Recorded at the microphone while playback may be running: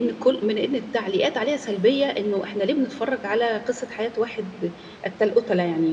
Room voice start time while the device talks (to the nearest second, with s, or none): none